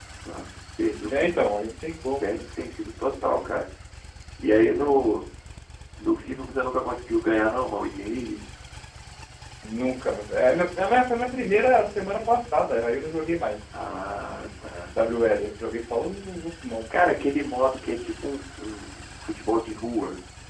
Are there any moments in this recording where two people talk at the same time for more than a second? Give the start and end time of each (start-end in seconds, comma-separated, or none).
none